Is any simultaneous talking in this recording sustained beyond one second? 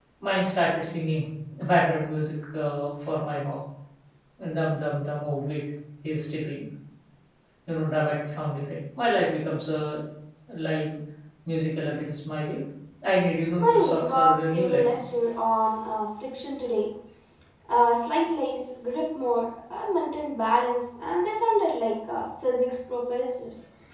Yes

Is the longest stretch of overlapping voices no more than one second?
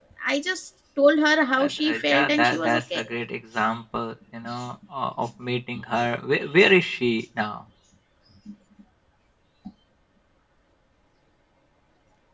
No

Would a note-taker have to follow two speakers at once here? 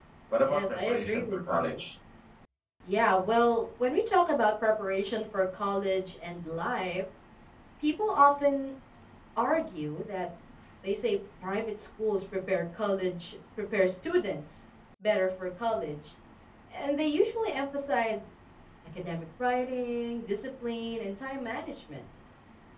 Yes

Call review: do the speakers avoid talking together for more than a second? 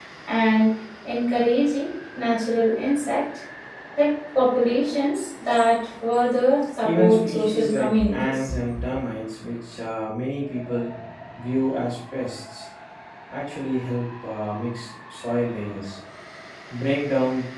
No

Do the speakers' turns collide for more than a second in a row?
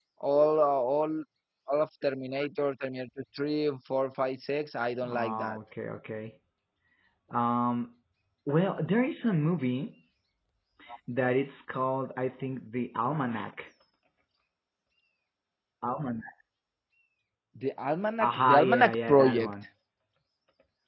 Yes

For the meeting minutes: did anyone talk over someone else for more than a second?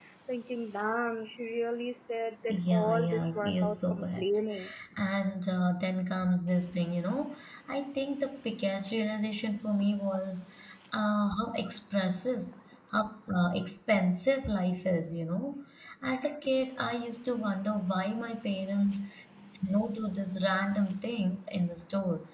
Yes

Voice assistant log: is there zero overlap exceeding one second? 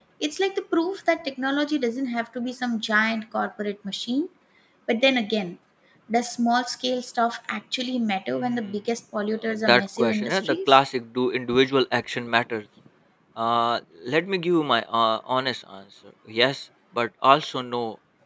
No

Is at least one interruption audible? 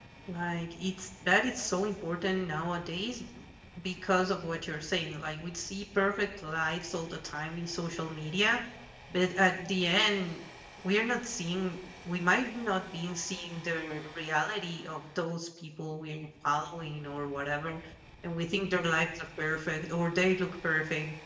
No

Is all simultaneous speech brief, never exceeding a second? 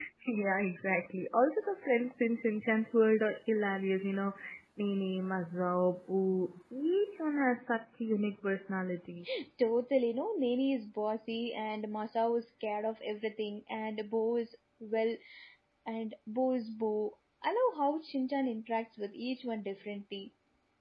Yes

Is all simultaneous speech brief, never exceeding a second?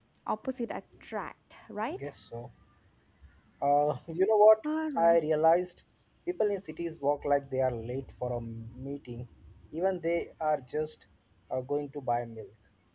Yes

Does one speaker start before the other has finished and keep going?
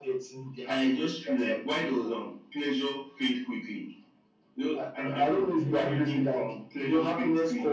Yes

